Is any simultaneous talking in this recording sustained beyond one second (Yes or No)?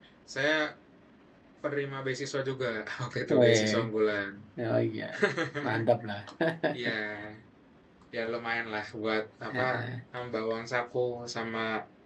No